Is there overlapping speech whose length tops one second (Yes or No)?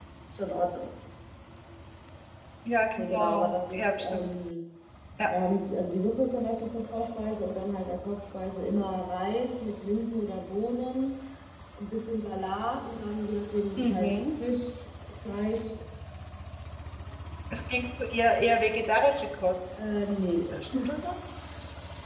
Yes